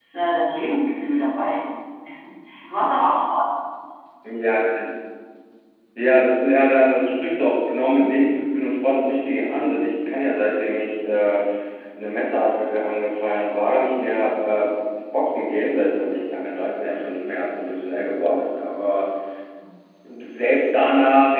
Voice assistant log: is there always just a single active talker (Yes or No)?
Yes